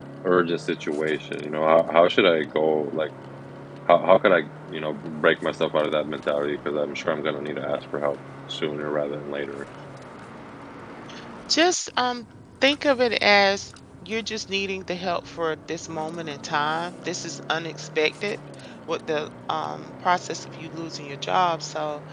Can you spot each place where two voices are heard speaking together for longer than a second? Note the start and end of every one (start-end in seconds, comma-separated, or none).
none